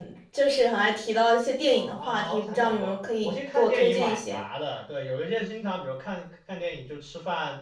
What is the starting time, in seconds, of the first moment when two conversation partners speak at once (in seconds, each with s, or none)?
1.7 s